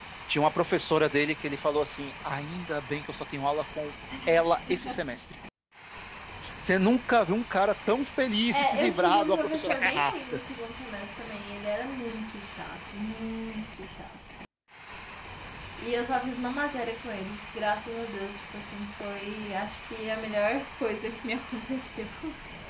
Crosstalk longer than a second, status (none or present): present